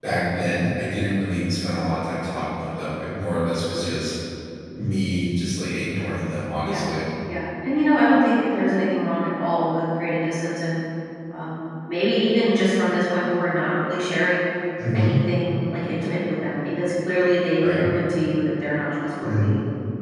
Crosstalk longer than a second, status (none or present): none